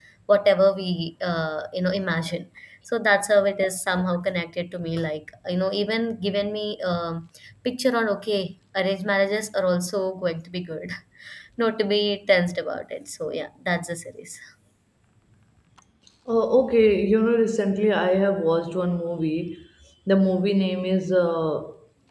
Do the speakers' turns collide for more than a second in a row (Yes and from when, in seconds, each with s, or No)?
No